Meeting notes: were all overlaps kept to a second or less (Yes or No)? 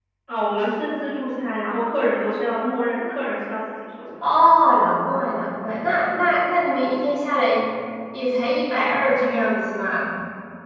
Yes